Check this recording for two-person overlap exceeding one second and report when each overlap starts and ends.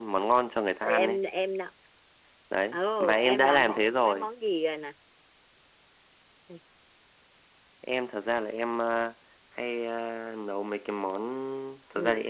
2.7-4.3

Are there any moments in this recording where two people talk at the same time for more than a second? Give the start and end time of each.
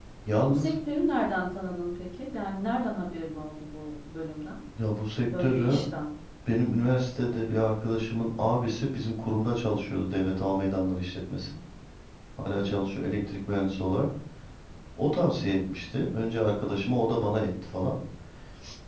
none

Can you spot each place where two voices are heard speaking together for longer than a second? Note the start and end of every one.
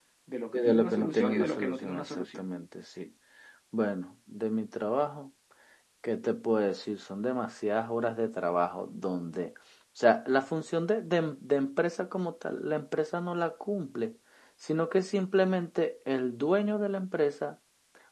0.5-2.4

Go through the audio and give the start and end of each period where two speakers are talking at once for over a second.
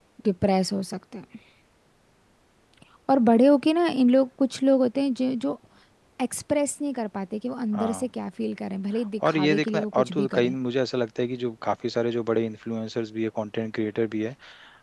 9.3-10.5

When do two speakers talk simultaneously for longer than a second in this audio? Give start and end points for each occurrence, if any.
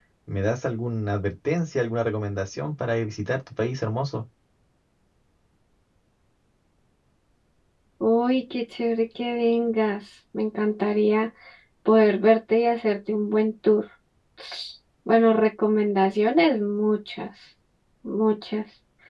none

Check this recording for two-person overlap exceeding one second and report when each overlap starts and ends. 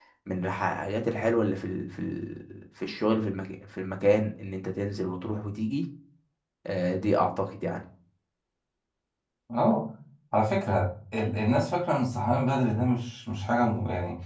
none

